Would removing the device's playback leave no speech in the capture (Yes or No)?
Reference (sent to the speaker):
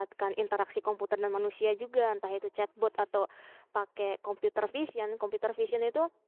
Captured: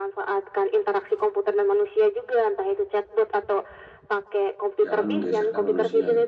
No